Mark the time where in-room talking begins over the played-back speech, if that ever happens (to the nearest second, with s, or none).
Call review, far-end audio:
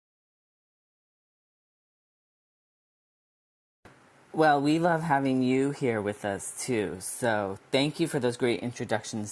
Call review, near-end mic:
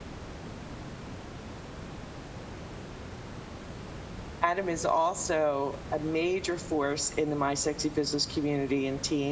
4 s